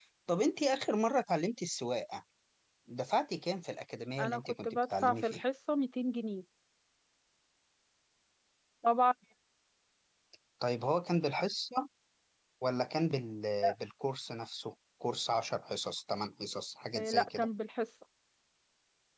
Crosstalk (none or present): present